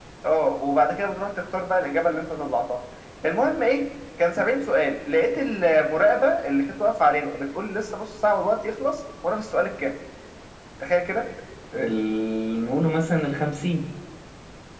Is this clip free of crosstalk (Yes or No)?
Yes